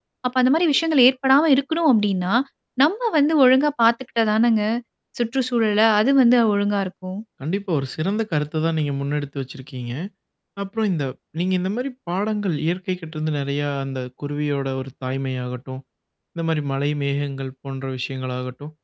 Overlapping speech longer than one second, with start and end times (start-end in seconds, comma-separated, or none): none